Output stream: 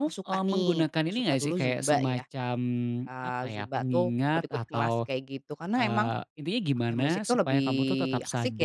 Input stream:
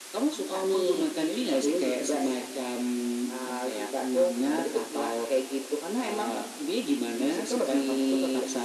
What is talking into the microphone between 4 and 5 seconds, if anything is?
echo only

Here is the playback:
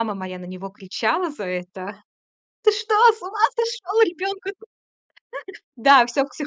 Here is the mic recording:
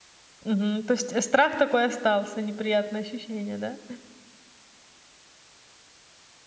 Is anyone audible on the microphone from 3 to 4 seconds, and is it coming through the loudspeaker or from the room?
user only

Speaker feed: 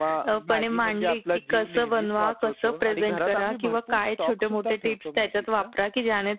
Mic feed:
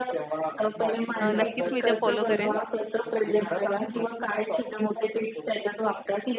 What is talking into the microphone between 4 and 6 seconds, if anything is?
echo only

